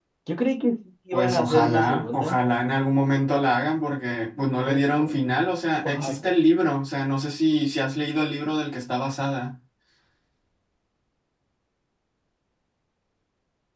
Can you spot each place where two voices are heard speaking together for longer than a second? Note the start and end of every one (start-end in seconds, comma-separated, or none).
1.1-2.4